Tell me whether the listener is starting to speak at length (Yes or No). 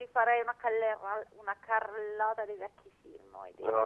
Yes